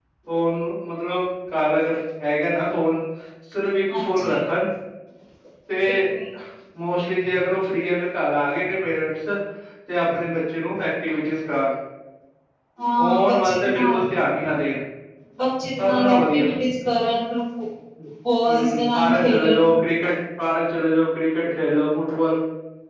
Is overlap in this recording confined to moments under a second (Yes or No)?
No